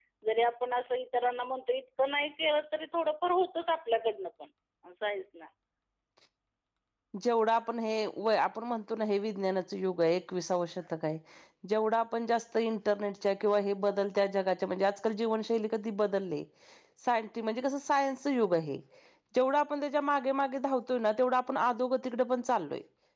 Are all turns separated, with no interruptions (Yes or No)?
Yes